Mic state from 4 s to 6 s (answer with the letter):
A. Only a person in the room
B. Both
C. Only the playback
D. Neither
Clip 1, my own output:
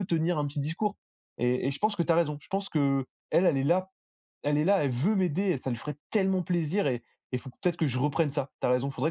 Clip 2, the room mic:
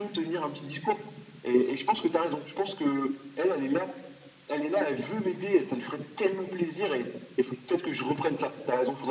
C